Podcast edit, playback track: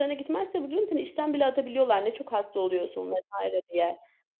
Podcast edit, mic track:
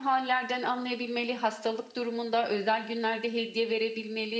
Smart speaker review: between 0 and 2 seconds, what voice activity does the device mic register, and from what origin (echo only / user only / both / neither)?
user only